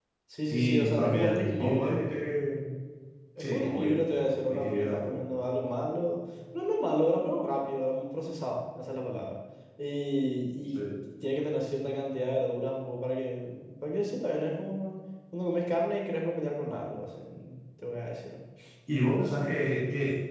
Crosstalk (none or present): present